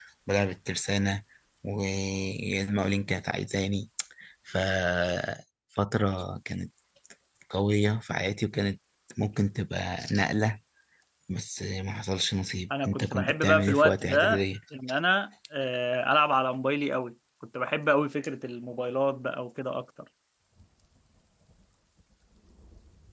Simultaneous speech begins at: 12.7 s

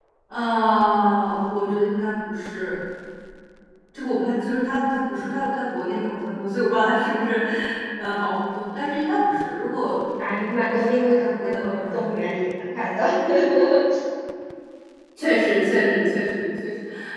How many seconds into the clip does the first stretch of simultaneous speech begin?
10.2 s

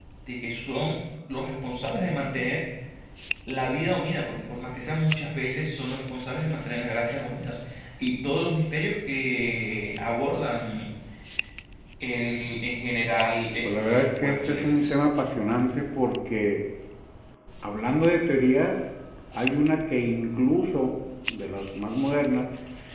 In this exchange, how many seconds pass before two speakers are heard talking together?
13.6 s

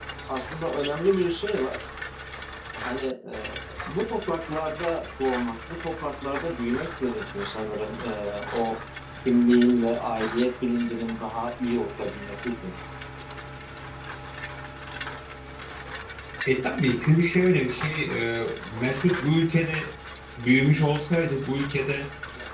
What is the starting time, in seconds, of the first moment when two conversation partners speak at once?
none

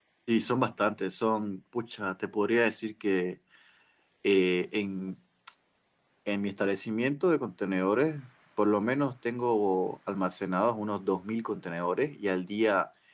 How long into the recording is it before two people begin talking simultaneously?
none

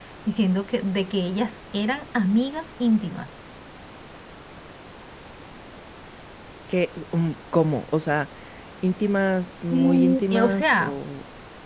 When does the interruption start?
9.7 s

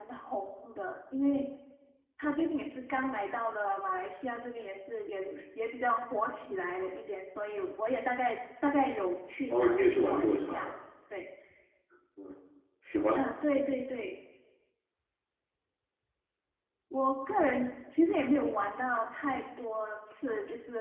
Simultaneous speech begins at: 9.5 s

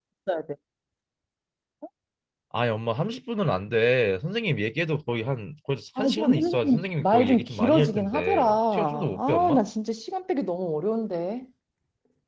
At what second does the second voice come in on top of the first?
6.0 s

